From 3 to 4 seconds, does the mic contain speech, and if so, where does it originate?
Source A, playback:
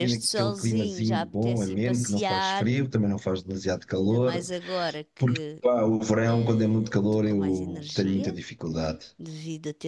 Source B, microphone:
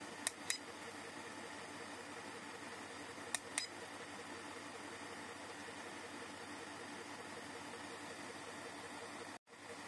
neither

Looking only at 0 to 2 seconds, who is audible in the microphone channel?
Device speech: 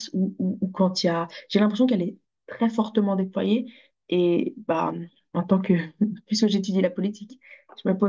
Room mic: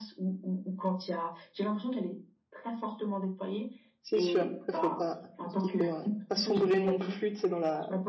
echo only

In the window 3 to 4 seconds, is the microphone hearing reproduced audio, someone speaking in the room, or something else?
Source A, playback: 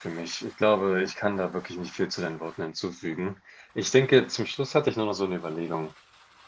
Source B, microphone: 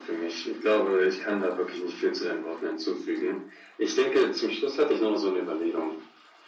echo only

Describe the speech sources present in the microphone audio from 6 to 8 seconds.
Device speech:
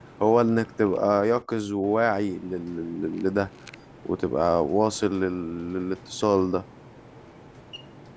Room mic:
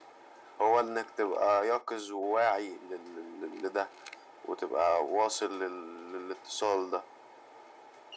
echo only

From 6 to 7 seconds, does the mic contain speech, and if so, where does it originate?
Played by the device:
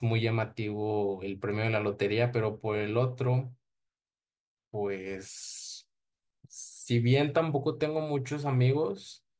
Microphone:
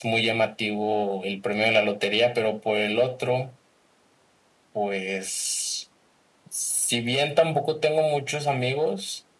echo only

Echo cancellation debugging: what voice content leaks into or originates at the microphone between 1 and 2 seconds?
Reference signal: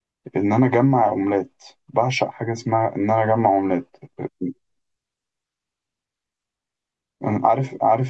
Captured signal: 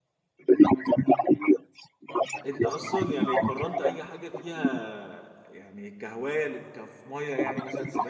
echo only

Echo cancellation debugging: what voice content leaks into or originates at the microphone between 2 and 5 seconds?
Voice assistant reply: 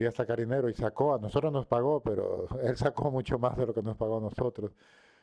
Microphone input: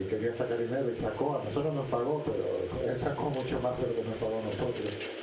echo only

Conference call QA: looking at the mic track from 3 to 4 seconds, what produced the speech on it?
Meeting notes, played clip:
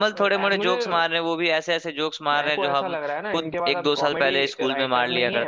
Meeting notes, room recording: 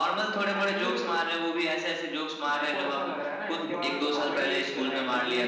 both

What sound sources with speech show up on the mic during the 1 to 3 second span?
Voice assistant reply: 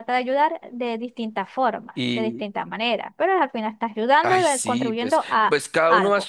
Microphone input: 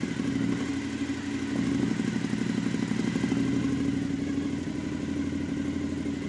neither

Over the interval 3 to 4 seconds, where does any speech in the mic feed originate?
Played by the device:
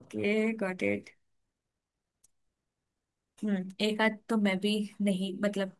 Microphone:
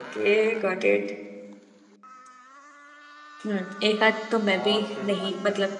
echo only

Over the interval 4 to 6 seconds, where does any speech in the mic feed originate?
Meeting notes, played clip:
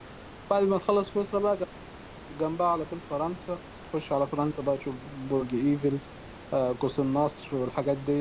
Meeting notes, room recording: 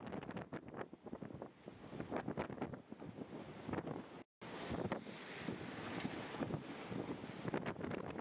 neither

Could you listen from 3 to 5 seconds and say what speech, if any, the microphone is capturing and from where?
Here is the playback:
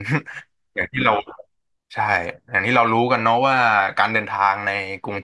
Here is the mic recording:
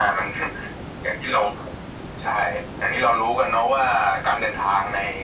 echo only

